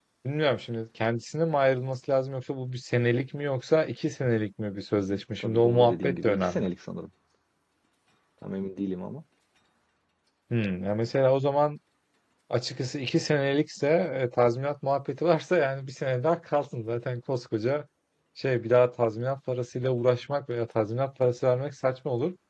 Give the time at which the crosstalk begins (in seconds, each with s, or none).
5.1 s